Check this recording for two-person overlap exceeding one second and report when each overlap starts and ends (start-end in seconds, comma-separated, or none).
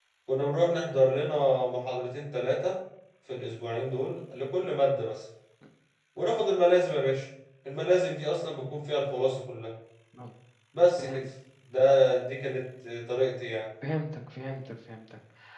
none